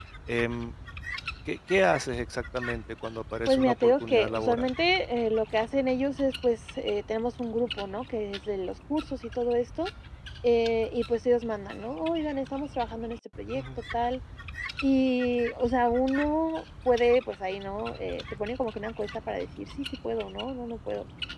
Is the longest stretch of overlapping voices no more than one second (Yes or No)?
No